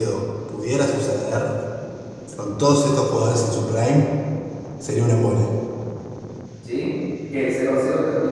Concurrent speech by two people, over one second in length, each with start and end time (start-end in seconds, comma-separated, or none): none